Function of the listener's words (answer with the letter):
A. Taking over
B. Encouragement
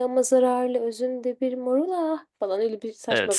A